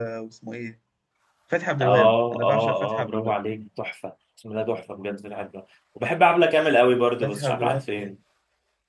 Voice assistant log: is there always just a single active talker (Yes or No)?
No